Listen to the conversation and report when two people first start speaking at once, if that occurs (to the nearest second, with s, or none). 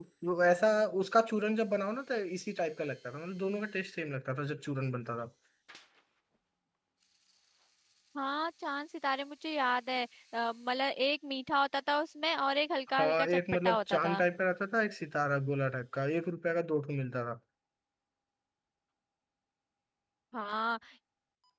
13 s